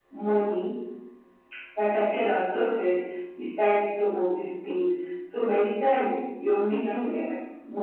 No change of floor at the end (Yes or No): Yes